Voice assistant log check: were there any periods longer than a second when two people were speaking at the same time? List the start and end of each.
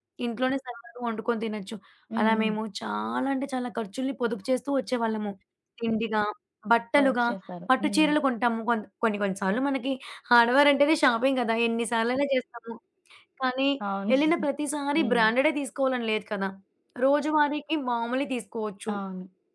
none

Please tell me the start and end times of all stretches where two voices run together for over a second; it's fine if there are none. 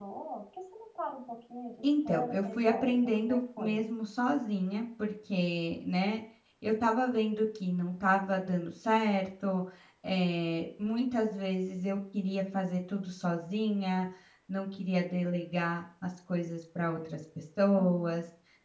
2.1-3.8

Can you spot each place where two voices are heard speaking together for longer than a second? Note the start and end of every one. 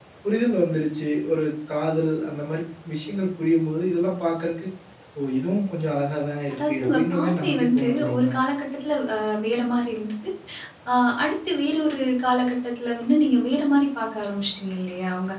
6.5-8.3

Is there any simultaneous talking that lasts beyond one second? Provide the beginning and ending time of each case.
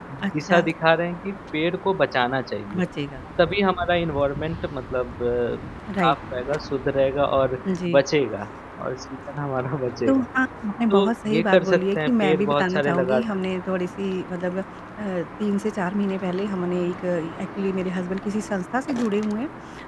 10.9-13.2

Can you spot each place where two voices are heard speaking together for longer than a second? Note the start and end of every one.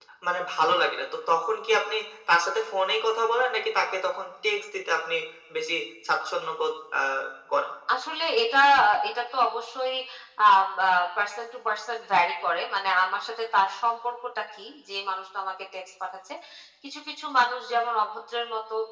none

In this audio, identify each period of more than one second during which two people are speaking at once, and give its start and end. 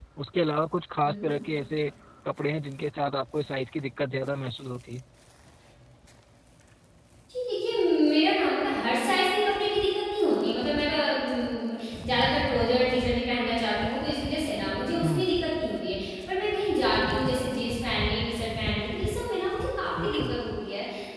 none

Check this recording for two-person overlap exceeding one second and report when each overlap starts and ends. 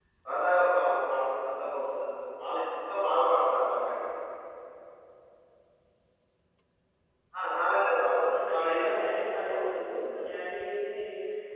8.3-9.7

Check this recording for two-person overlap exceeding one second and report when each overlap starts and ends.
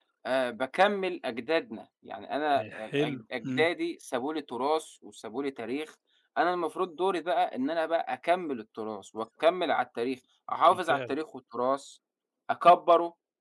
2.5-3.7

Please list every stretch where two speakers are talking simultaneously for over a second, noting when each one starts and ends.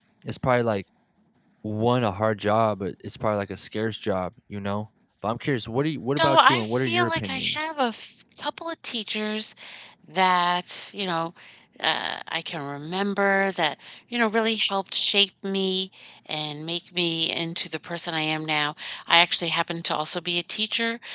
6.2-7.7

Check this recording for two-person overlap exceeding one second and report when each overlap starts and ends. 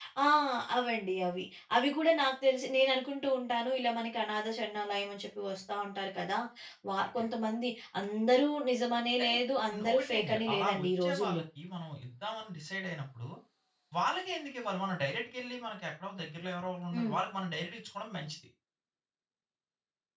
9.9-11.4

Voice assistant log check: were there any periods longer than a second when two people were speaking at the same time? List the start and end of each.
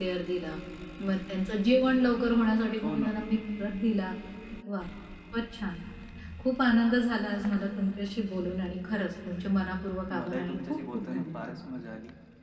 10.2-11.6

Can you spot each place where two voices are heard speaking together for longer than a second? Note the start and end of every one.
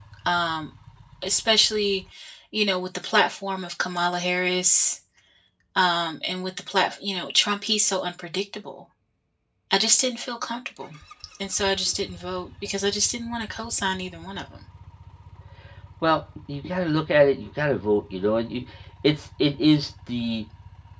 none

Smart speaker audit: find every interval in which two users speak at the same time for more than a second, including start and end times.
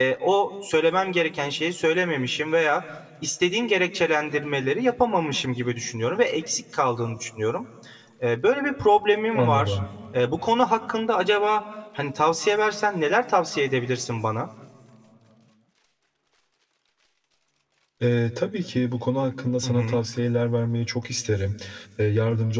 none

